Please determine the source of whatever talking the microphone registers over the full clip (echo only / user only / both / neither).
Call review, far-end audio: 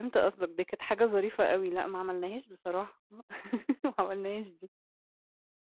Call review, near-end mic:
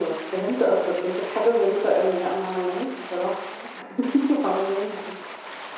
echo only